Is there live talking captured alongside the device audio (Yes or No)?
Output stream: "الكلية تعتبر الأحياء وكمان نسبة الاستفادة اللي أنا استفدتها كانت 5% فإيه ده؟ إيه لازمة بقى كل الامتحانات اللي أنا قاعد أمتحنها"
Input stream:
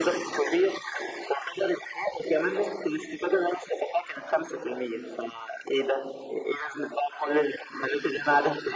No